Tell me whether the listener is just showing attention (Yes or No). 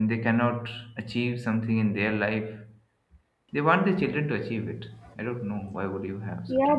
No